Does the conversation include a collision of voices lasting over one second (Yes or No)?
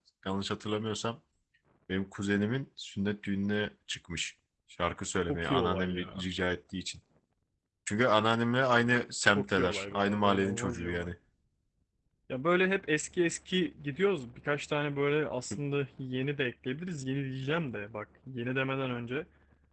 Yes